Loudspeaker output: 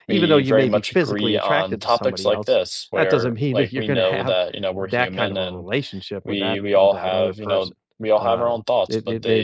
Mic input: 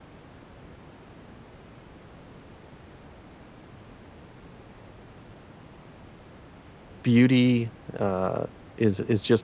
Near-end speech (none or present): present